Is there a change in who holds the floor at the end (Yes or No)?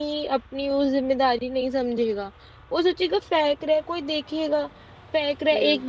No